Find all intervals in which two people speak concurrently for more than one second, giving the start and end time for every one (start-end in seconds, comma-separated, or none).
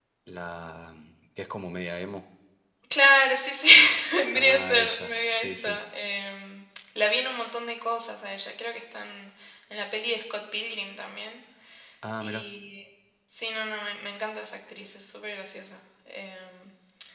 4.3-5.8